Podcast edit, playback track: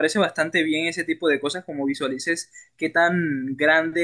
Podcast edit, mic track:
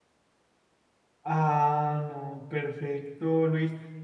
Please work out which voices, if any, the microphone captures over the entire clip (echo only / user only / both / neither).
user only